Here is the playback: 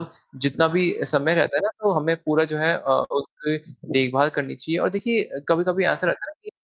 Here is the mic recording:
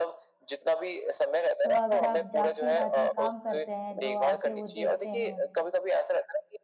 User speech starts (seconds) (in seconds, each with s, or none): 1.6 s